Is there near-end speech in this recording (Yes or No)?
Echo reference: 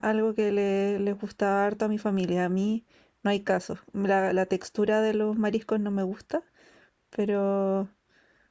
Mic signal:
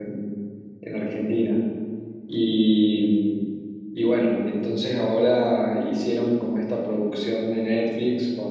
Yes